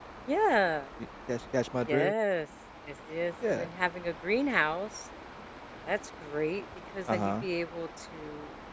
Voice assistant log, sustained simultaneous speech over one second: none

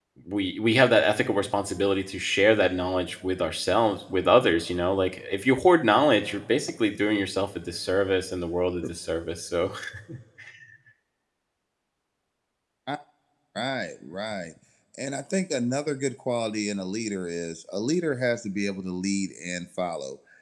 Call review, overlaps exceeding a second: none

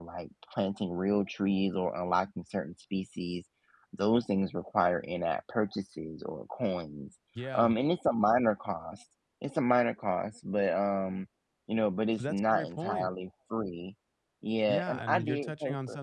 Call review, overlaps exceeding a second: present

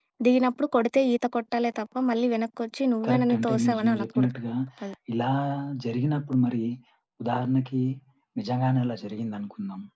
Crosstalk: present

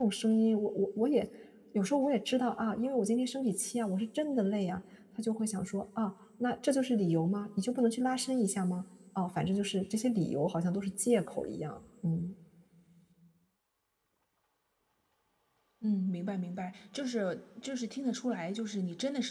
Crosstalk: none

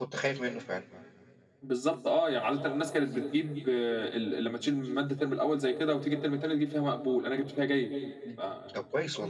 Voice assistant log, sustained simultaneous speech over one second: none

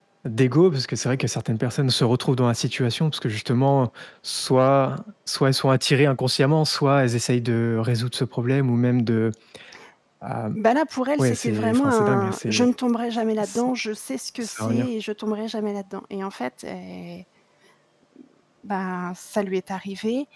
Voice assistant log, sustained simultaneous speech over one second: present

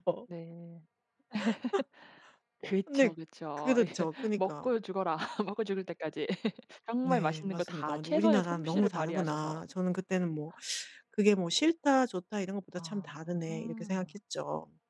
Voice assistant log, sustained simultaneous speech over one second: present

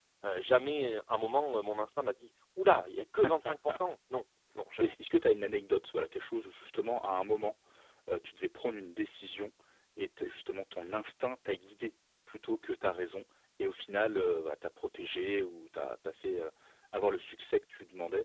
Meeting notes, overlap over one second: none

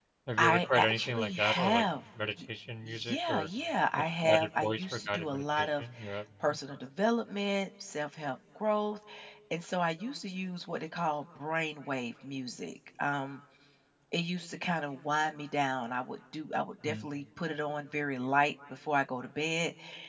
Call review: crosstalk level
present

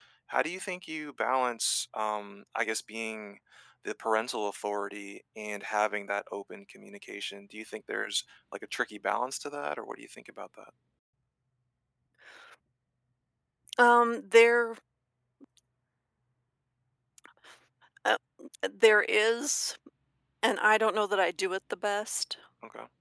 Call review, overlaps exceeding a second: none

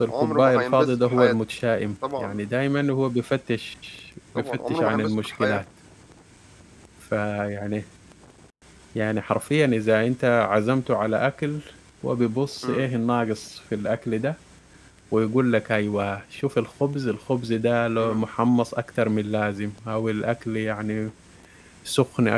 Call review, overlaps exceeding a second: present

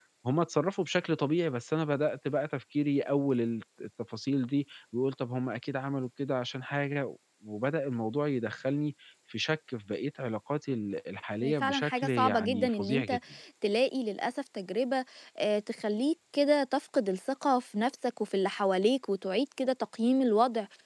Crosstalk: present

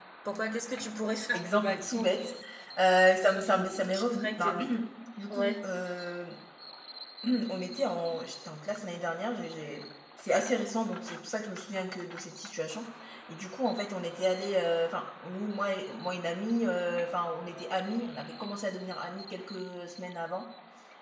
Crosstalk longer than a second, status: present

